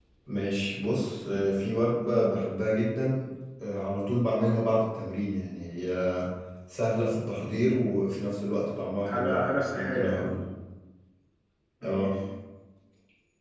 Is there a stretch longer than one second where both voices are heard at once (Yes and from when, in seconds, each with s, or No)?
Yes, from 9.0 s